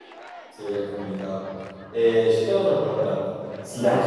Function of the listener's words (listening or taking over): listening